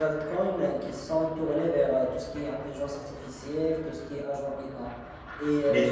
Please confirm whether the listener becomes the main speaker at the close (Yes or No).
No